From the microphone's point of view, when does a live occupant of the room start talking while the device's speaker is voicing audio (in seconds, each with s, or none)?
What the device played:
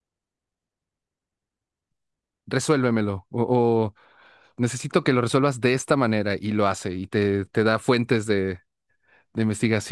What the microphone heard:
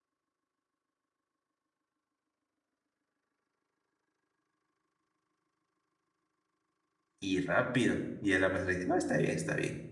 7.2 s